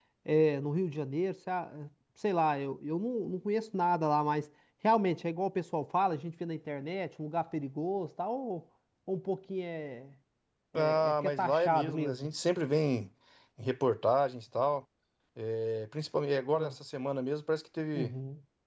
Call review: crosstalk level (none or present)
present